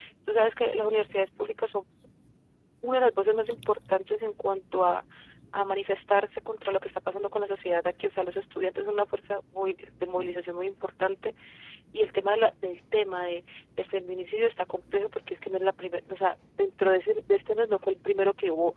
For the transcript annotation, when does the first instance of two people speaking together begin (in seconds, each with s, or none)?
none